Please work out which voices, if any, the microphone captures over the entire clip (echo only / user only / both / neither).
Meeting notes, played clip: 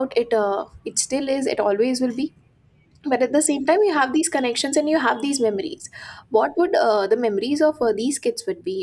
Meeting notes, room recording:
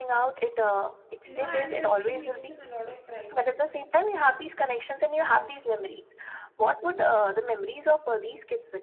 both